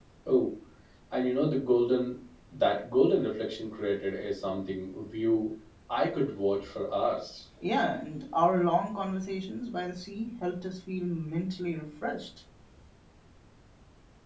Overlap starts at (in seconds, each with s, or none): none